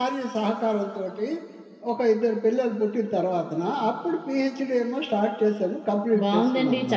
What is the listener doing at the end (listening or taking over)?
taking over